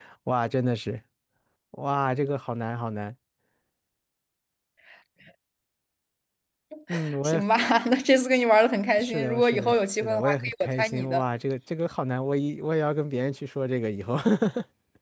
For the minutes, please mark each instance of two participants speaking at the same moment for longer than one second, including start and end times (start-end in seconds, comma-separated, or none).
9.0-11.2